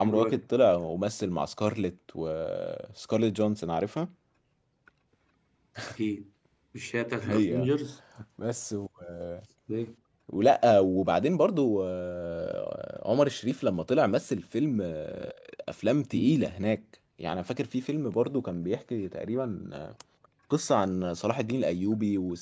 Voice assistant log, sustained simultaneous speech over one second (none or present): none